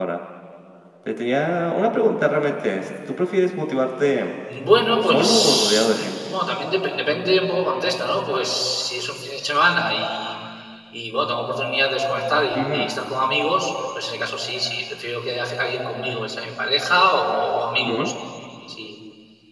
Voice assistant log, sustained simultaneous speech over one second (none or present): present